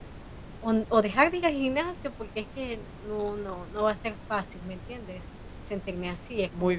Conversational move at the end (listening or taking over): taking over